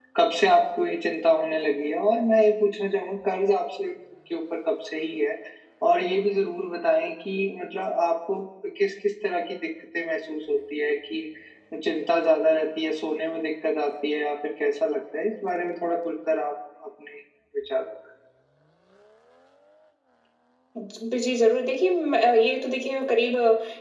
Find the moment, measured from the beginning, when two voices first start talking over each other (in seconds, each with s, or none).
none